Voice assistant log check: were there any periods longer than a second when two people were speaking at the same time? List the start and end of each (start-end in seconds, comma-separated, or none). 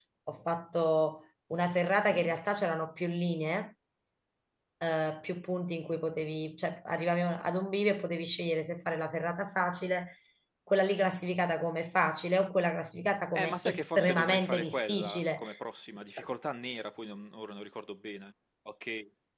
13.3-15.4